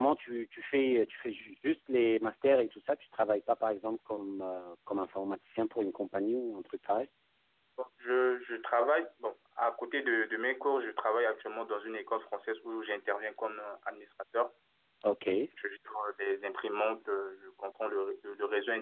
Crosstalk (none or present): none